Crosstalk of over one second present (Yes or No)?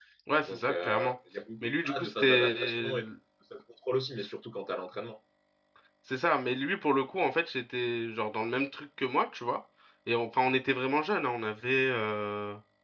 Yes